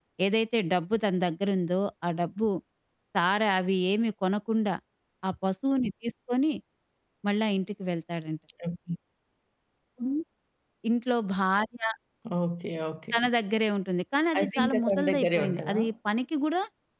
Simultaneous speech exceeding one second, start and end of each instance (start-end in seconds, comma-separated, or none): 14.4-15.8